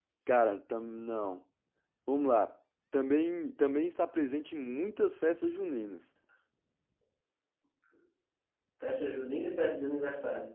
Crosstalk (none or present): none